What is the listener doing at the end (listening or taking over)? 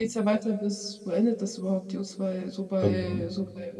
listening